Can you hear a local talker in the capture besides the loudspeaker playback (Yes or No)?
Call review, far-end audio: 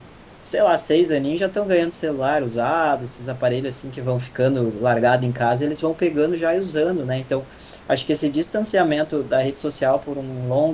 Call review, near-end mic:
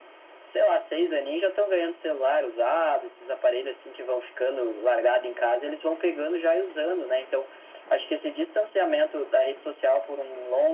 No